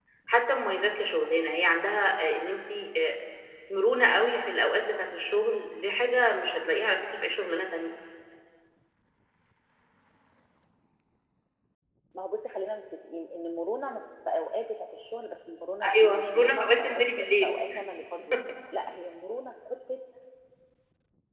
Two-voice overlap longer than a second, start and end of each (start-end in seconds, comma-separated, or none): 15.9-17.5